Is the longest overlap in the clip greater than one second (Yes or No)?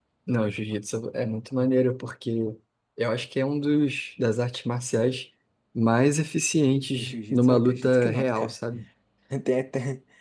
Yes